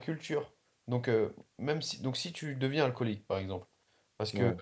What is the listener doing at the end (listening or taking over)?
listening